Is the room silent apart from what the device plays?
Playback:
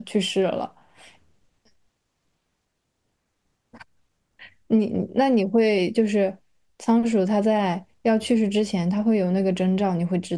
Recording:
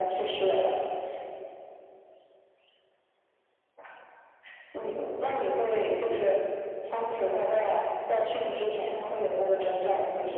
Yes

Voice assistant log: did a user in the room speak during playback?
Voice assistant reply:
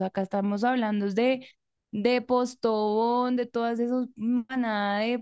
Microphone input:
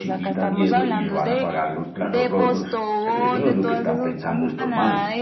Yes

